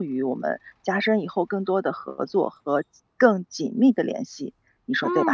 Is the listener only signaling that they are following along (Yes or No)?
No